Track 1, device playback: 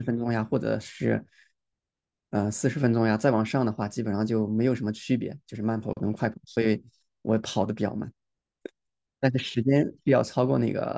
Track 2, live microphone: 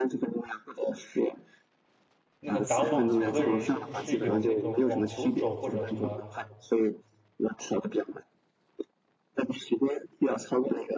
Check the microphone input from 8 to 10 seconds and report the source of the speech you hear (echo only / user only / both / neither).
echo only